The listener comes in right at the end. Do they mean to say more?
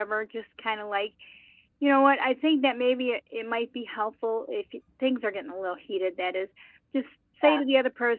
No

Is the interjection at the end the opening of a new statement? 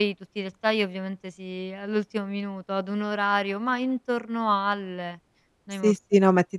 Yes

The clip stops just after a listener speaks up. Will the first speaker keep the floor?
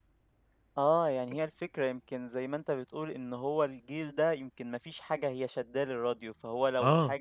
Yes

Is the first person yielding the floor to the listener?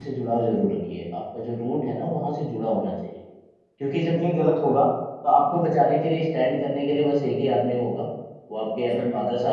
No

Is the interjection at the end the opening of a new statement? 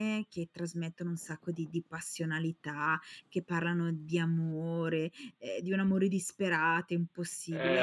Yes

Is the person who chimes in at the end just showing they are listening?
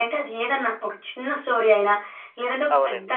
Yes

